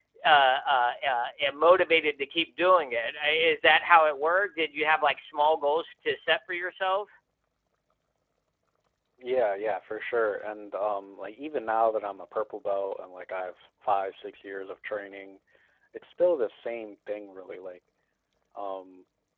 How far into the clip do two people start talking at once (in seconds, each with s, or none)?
none